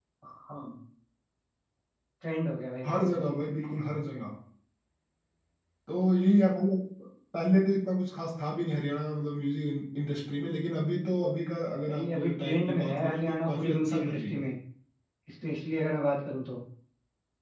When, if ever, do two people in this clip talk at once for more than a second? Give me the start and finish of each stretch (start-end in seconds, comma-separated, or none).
11.9-14.4